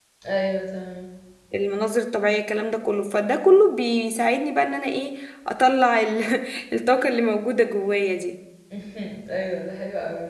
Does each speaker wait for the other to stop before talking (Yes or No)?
Yes